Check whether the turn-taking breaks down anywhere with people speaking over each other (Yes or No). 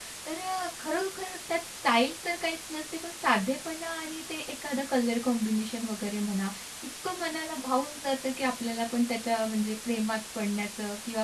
No